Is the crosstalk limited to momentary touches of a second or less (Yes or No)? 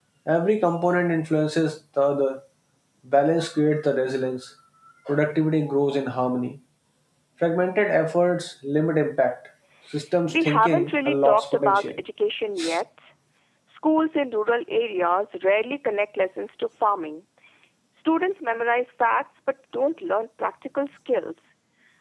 No